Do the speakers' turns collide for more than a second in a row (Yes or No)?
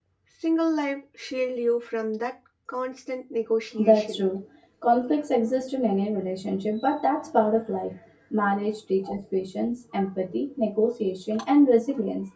No